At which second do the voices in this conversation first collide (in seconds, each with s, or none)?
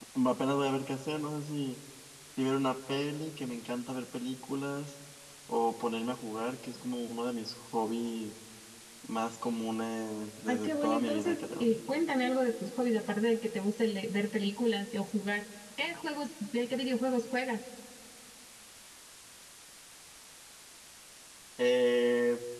10.5 s